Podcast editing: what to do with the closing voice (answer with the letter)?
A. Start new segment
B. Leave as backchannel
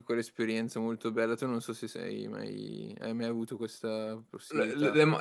A